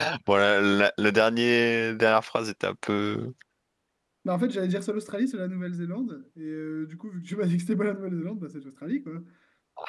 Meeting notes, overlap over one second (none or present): none